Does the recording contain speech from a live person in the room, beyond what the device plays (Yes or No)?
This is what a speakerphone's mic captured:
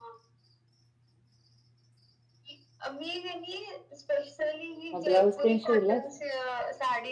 Yes